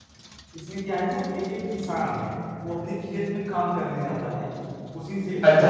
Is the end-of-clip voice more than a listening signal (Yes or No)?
Yes